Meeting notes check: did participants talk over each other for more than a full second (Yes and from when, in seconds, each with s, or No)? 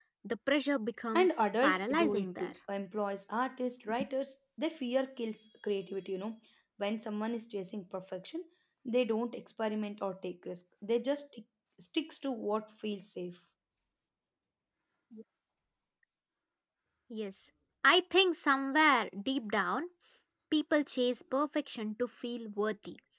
Yes, from 1.1 s